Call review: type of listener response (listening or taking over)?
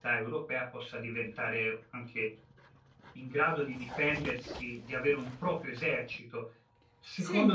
listening